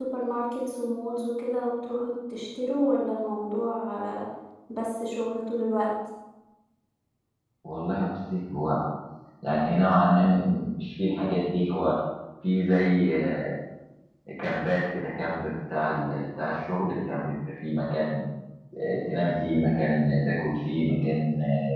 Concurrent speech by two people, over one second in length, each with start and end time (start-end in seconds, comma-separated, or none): none